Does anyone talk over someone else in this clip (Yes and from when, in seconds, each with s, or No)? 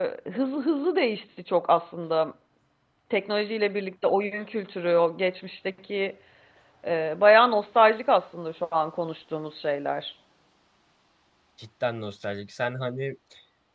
No